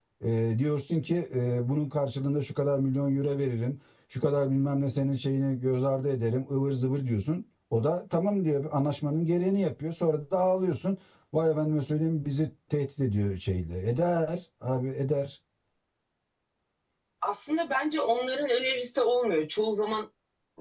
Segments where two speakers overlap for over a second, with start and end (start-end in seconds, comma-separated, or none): none